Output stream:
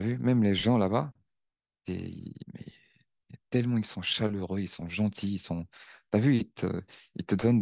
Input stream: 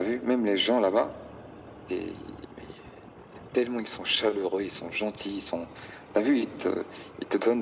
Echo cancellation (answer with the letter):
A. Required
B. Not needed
A